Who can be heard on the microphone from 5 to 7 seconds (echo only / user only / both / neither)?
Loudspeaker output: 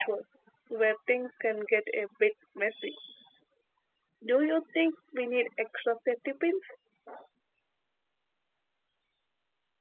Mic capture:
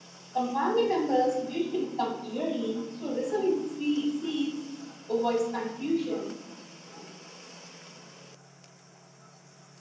user only